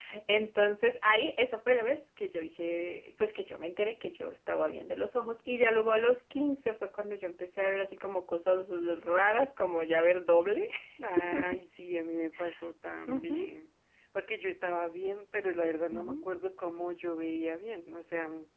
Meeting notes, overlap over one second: none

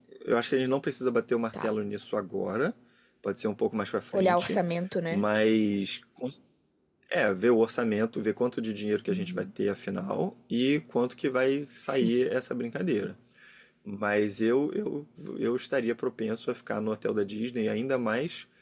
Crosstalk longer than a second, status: none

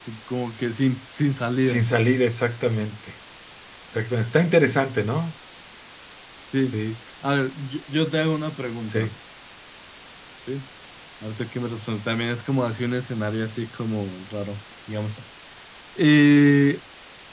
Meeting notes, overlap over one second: none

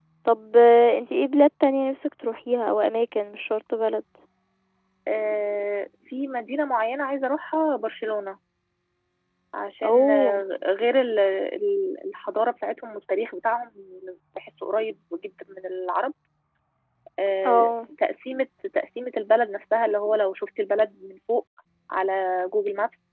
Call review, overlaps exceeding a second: none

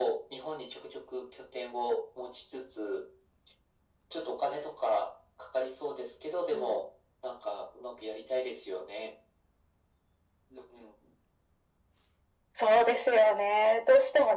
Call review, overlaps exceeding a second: none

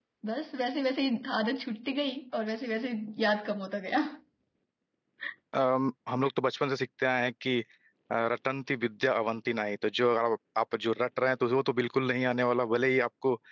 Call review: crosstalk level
none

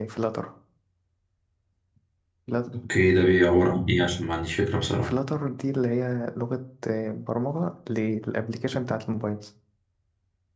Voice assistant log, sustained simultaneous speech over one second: none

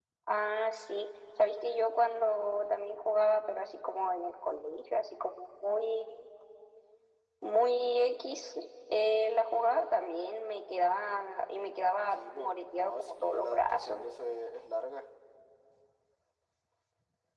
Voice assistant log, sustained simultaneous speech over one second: present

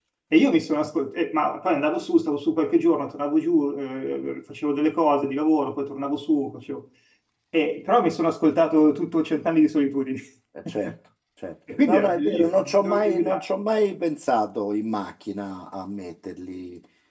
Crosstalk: present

